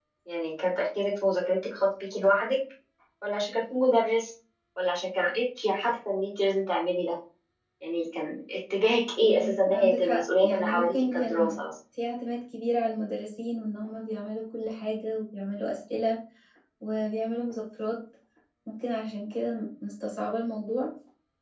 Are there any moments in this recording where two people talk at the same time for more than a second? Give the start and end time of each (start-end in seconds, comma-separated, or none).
9.2-11.6